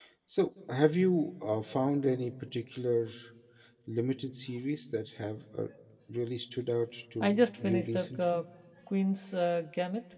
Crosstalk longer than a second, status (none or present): present